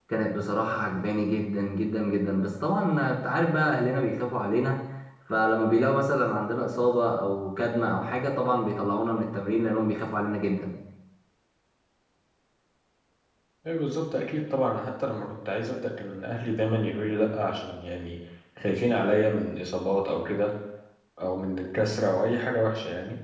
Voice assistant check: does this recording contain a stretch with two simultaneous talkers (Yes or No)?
No